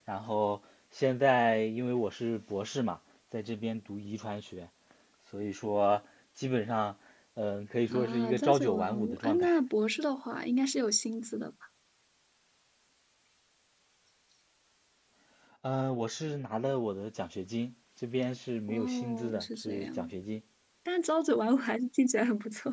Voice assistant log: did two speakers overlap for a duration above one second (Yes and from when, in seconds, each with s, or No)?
Yes, from 7.9 s